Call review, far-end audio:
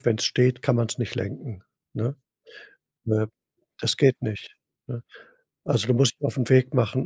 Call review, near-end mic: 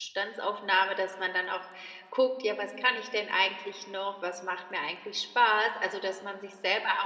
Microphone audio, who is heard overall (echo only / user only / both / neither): user only